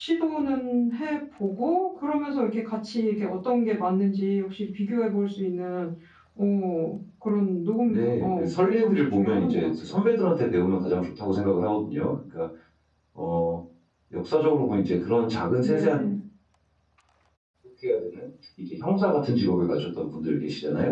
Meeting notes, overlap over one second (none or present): present